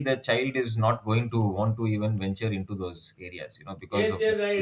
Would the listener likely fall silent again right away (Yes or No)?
No